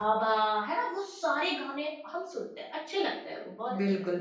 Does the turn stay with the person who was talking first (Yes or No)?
No